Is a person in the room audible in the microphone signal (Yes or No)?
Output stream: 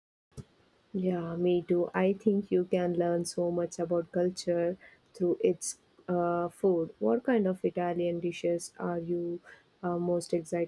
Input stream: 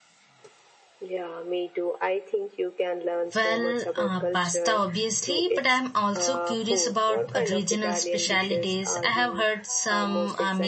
Yes